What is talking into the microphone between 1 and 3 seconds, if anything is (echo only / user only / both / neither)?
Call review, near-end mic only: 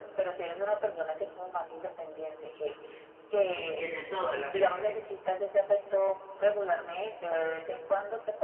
echo only